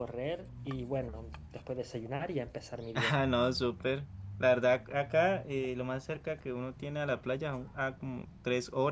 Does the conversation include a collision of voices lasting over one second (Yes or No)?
No